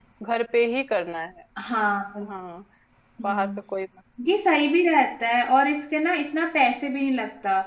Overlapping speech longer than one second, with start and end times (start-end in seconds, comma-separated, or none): none